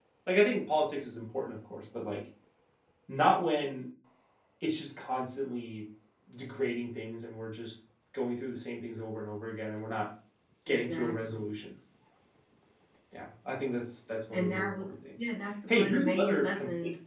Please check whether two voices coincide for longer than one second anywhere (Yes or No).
Yes